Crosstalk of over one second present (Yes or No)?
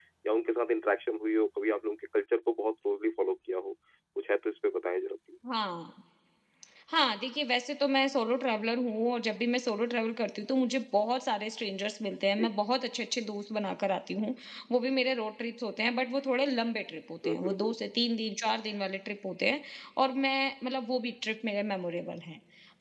No